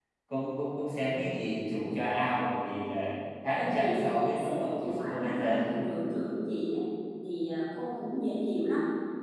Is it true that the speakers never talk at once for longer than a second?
No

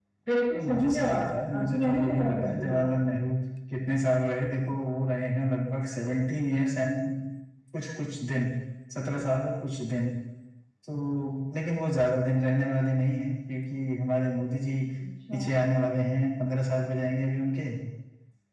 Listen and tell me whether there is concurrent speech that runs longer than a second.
Yes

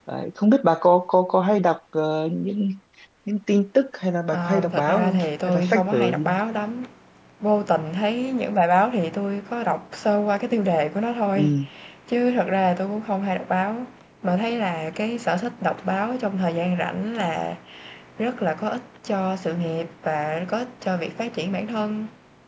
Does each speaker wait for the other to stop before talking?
No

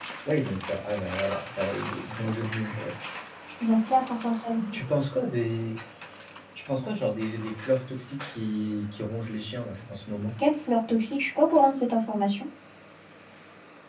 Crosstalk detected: No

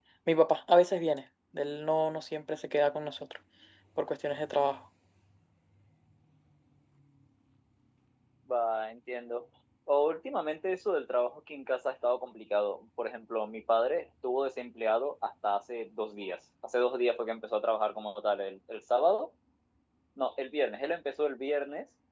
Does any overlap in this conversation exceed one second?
No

